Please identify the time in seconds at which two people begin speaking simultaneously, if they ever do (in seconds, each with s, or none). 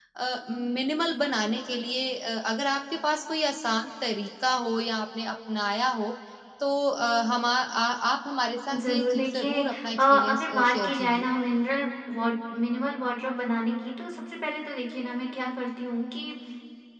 8.7 s